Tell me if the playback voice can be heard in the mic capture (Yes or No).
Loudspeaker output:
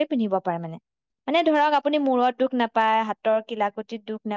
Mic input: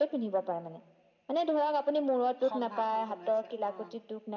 Yes